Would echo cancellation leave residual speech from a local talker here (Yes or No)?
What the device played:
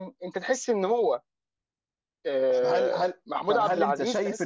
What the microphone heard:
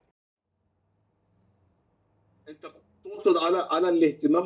Yes